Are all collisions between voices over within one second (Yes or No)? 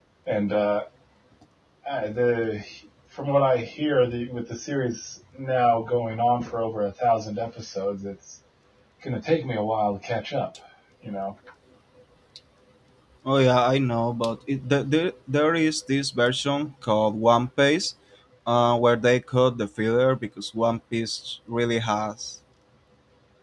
Yes